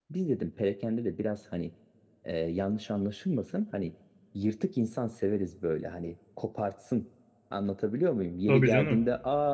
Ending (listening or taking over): listening